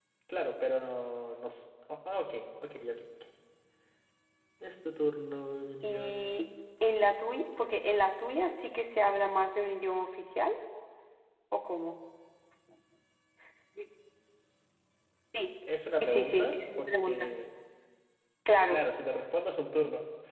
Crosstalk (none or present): present